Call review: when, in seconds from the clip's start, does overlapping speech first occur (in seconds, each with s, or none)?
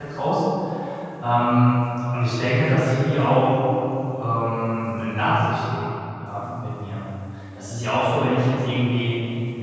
none